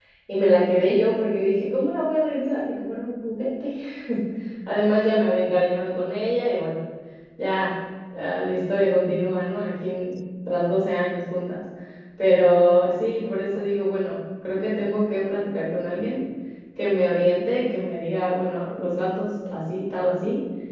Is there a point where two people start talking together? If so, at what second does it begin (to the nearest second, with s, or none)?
none